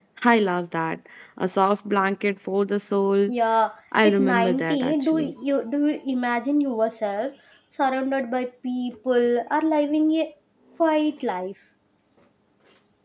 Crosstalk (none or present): present